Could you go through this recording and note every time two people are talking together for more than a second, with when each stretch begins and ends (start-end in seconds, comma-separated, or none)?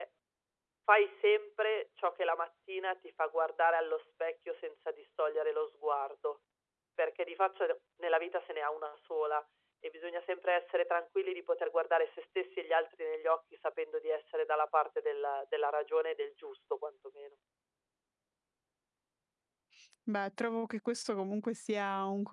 none